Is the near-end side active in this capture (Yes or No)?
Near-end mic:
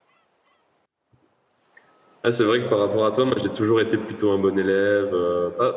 Yes